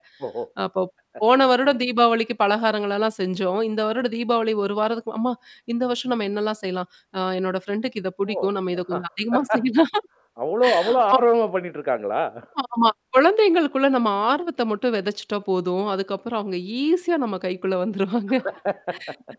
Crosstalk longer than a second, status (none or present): none